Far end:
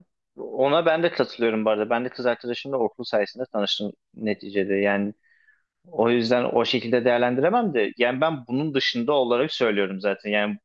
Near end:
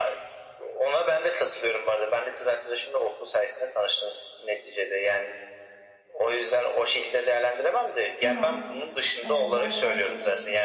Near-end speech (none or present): present